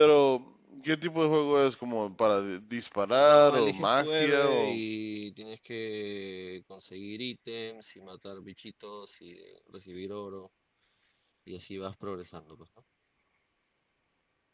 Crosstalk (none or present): present